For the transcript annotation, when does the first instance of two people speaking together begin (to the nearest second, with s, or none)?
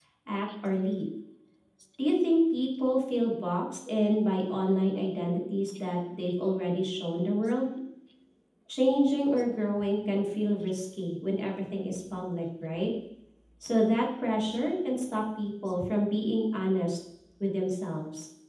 none